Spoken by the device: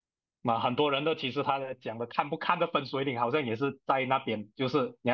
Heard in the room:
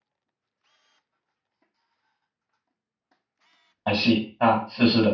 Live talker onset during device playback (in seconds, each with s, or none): 3.8 s